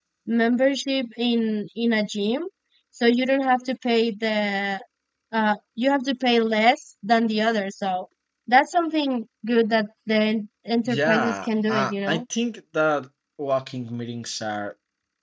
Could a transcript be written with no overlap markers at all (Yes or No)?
No